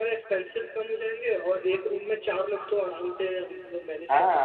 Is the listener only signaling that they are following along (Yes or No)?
No